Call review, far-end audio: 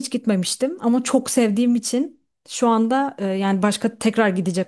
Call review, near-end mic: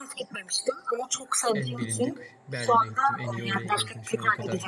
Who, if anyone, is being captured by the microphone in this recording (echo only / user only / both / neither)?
both